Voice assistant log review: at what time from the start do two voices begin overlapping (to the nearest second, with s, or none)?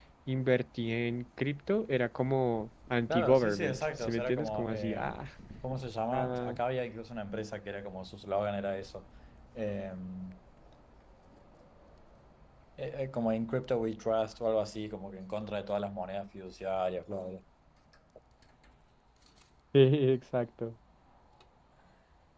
3 s